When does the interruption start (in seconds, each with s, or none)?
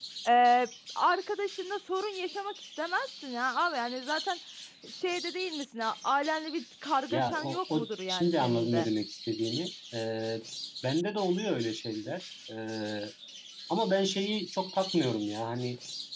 7.1 s